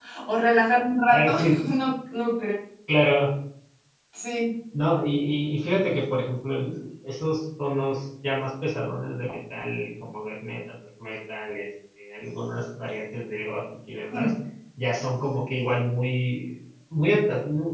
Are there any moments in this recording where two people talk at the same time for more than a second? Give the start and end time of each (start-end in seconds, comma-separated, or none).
none